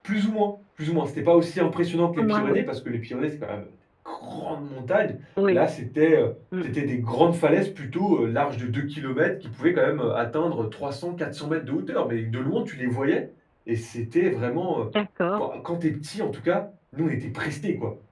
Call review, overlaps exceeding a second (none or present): none